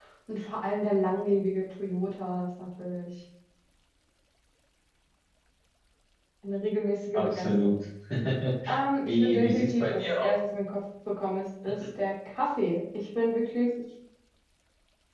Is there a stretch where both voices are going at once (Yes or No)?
Yes